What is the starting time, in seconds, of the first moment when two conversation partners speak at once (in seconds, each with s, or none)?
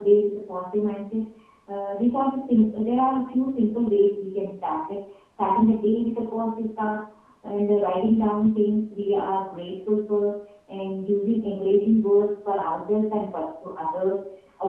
none